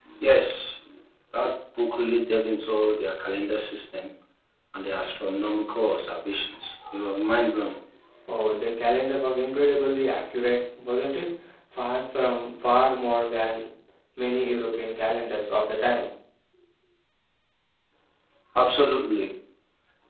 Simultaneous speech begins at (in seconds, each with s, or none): none